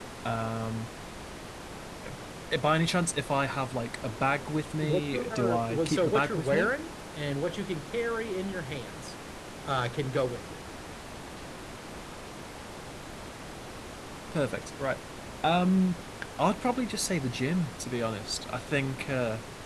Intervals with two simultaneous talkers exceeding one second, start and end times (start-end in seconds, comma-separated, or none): 4.8-6.7